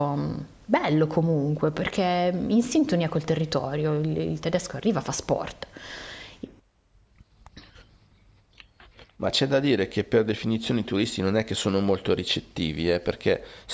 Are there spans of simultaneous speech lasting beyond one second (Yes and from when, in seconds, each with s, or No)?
No